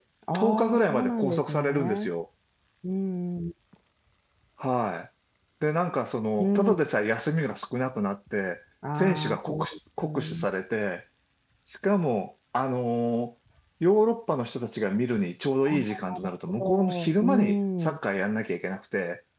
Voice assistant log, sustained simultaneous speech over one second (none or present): present